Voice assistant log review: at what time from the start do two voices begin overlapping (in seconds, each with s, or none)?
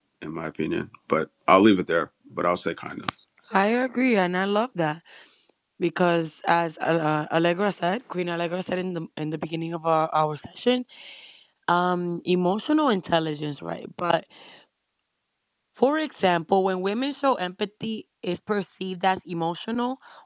none